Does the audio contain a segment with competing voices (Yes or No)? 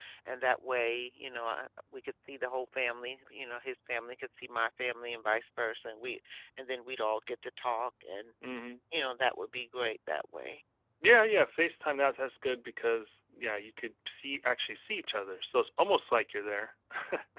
No